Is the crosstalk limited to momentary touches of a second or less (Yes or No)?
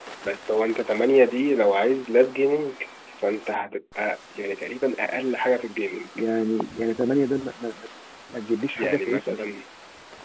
Yes